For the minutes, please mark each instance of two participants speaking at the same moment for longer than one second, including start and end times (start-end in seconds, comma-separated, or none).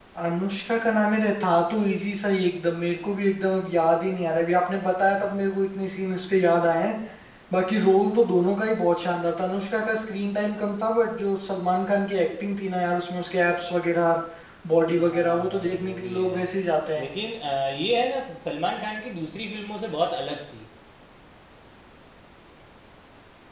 15.0-16.4